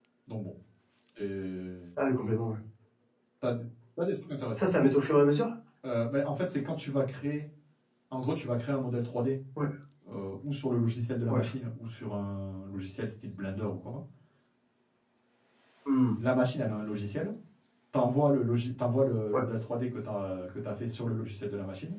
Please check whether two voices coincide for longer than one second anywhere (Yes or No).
No